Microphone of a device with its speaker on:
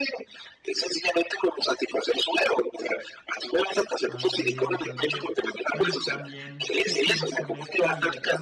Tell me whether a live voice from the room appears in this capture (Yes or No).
Yes